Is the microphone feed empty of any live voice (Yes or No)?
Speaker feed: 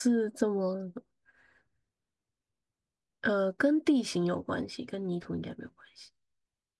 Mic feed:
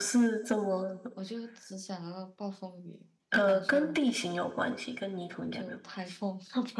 No